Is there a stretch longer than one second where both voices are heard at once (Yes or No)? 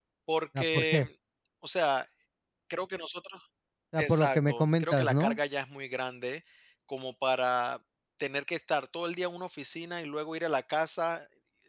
Yes